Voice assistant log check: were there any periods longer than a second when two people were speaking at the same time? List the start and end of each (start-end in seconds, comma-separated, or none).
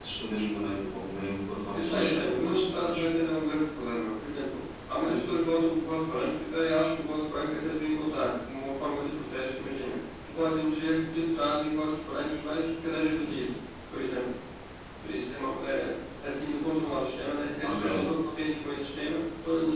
1.7-3.0